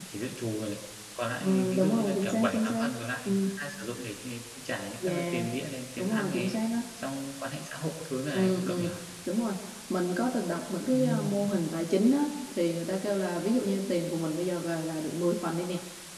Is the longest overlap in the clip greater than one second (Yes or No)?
Yes